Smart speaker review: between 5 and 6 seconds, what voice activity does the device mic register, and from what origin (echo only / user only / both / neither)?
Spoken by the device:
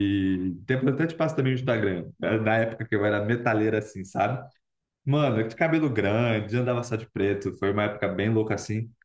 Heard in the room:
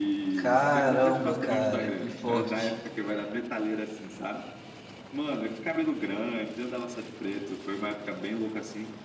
echo only